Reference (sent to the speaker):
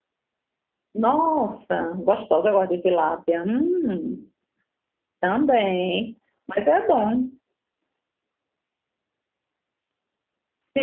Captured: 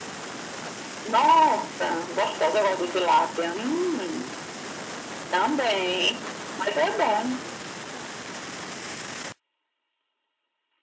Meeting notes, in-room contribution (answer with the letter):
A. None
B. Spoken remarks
A